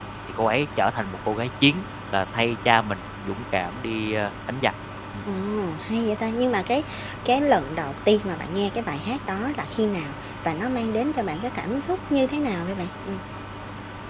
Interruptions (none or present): none